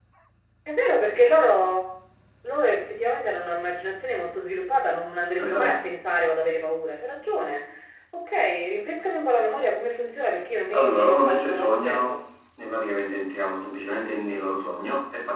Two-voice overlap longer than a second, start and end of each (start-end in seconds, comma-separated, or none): 10.7-12.2